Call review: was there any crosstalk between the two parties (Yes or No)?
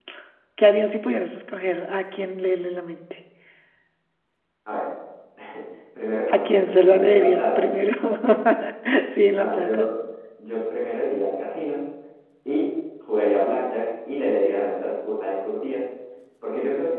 Yes